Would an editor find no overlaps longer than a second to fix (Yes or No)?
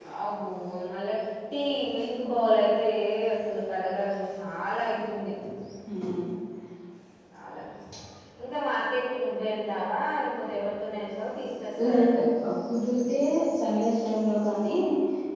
Yes